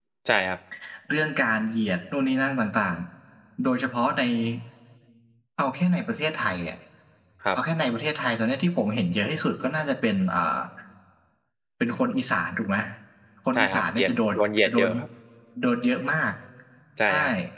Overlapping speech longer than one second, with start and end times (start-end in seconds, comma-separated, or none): 13.6-14.9